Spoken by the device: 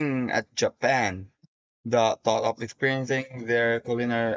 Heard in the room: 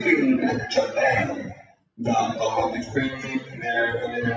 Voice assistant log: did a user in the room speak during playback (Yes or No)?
No